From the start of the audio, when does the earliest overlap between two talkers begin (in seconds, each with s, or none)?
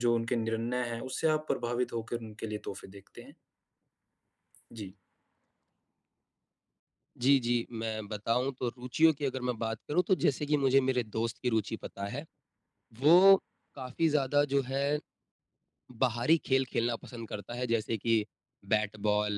none